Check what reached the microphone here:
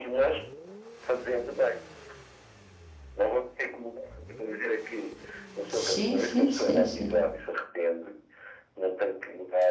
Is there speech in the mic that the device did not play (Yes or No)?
Yes